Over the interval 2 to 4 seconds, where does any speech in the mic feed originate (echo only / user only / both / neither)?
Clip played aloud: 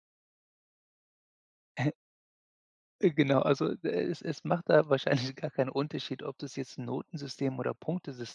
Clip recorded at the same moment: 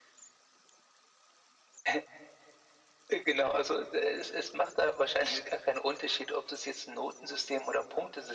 echo only